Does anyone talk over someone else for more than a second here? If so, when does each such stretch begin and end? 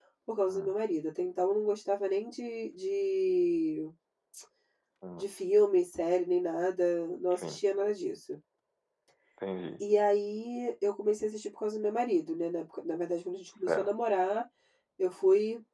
none

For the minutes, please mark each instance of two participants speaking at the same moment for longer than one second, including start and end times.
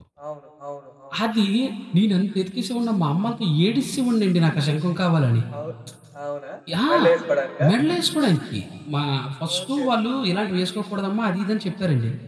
none

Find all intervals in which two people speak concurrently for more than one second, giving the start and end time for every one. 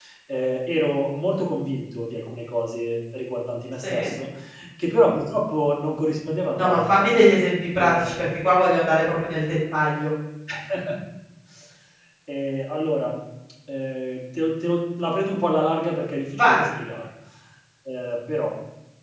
none

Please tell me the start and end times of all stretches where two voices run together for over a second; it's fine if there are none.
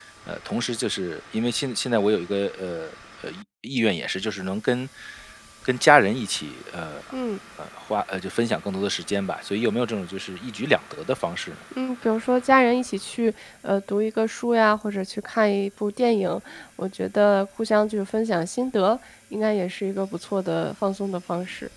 none

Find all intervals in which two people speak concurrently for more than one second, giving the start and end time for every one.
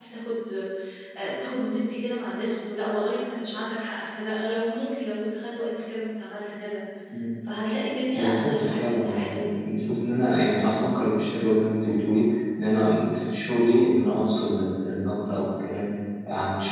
8.1-9.7

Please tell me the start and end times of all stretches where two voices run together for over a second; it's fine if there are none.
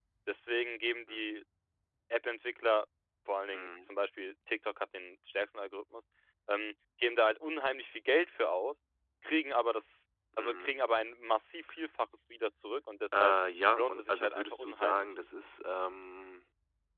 13.8-15.1

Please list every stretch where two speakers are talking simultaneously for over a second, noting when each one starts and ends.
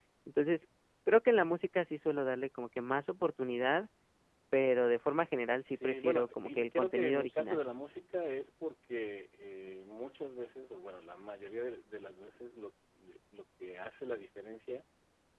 5.7-7.6

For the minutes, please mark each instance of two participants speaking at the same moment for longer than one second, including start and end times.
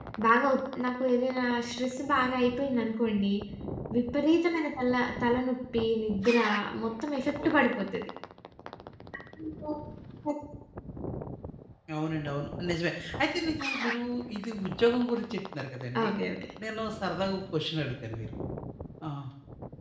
none

